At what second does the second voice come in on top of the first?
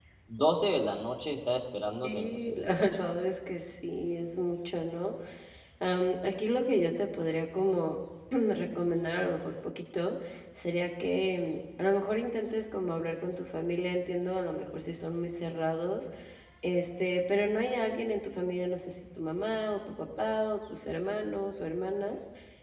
2 s

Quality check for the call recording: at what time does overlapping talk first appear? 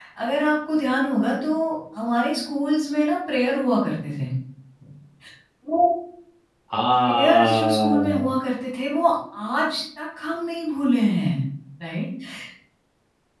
7 s

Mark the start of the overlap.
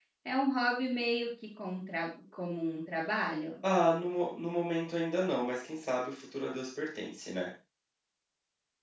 none

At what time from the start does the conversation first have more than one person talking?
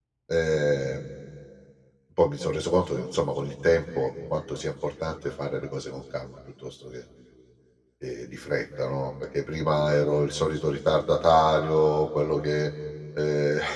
none

